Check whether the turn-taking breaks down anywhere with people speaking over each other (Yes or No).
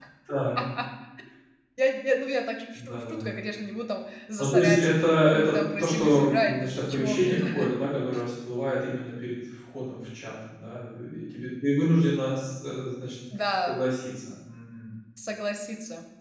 Yes